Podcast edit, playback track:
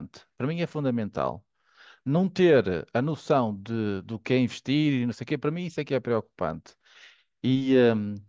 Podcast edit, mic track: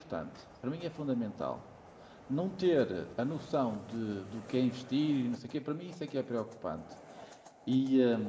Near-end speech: none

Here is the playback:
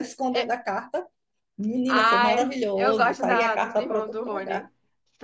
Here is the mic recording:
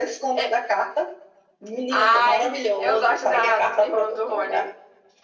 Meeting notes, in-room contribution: none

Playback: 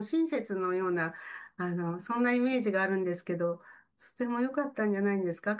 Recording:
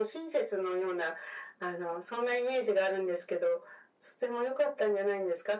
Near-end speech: none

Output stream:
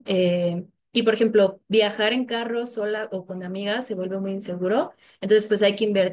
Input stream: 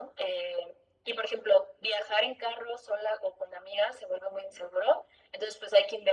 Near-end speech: none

